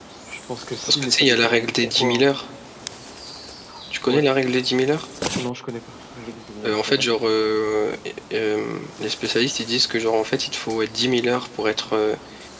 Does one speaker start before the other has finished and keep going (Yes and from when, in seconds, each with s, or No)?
Yes, from 0.9 s